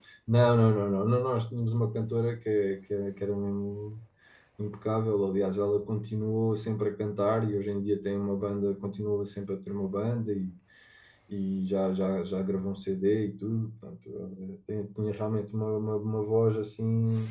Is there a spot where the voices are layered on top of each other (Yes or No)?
No